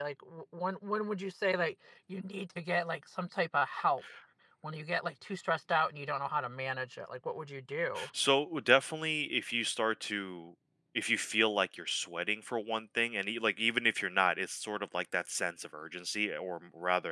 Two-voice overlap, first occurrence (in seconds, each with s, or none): none